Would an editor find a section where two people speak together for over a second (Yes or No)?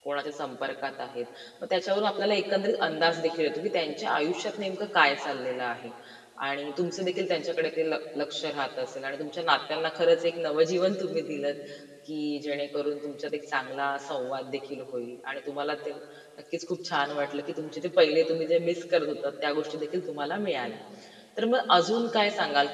No